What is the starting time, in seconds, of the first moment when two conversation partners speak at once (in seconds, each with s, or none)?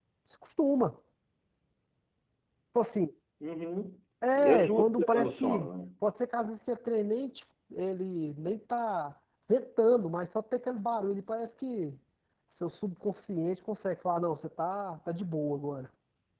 4.2 s